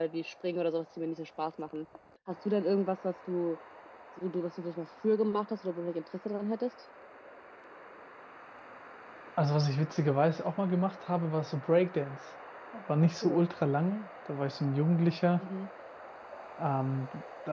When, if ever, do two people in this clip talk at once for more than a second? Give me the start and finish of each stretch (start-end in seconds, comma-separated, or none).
none